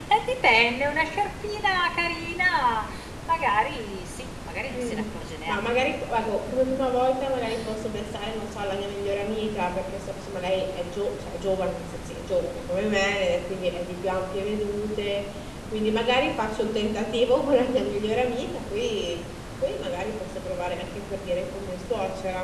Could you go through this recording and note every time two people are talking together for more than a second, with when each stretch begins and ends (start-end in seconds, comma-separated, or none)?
none